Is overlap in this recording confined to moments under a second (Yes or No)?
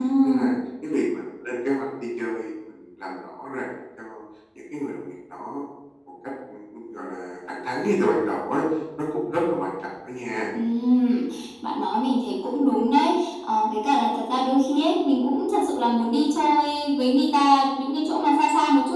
Yes